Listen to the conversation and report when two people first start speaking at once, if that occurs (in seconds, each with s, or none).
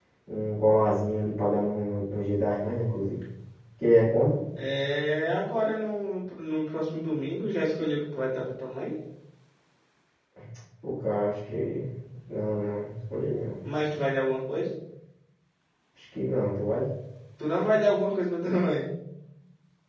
none